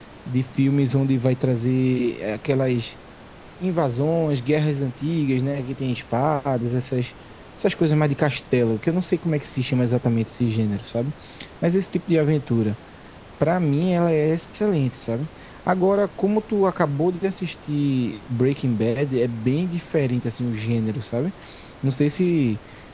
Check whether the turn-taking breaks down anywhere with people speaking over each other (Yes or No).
No